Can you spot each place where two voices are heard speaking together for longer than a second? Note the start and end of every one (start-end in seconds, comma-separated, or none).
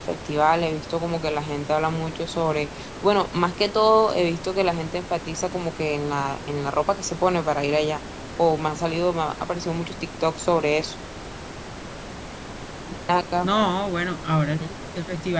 none